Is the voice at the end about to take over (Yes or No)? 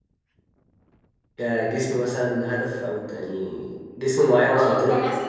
Yes